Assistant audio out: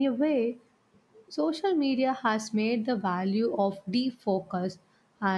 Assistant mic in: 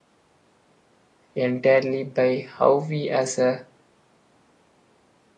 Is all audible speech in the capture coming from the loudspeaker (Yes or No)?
No